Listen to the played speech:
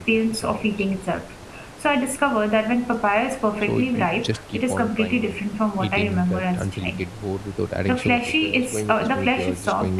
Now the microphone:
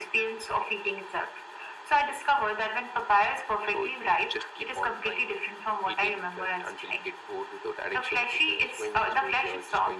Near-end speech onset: none

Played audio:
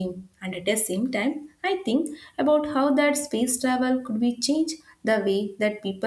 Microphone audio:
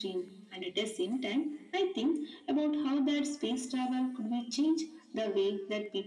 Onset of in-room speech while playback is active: none

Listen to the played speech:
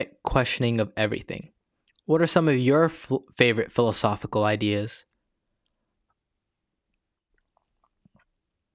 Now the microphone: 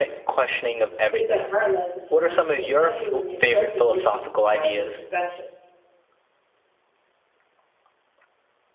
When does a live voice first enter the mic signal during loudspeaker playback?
1.1 s

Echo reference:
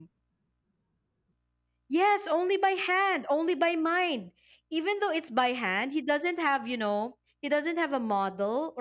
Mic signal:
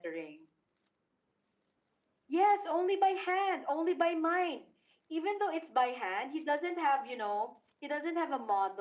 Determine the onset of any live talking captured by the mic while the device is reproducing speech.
none

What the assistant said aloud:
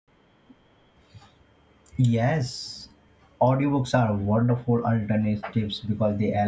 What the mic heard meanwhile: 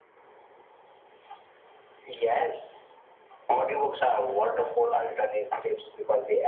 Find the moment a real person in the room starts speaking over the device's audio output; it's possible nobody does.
none

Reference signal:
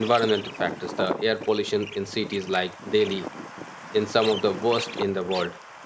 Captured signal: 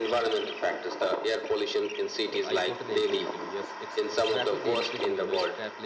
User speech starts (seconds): 2.3 s

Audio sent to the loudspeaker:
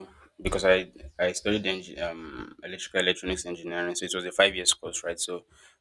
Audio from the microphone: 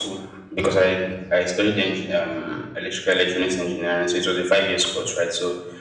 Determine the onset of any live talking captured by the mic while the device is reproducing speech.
none

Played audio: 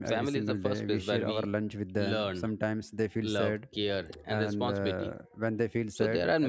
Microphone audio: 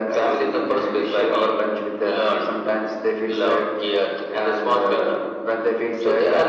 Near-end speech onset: none

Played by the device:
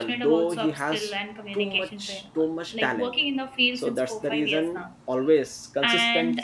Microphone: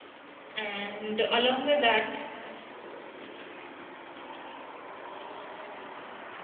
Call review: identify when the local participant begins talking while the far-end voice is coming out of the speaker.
0.6 s

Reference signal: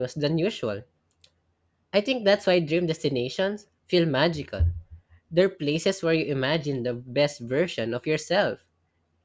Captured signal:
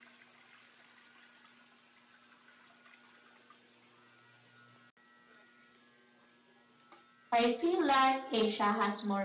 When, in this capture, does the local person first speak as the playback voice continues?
7.3 s

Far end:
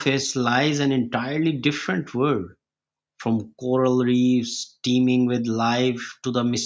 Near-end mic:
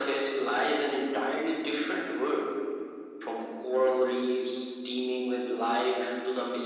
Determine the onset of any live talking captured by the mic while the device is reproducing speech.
none

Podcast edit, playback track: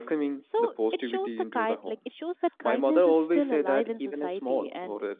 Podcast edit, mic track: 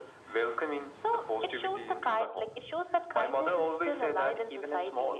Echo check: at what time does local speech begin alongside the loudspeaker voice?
none

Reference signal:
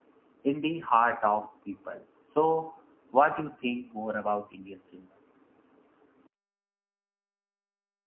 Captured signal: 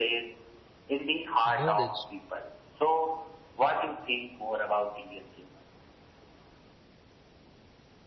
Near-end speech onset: 1.4 s

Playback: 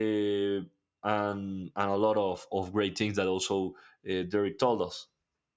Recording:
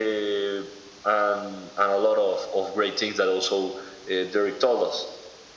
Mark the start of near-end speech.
none

